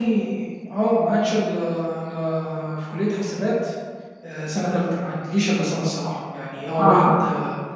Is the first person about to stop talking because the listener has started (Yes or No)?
No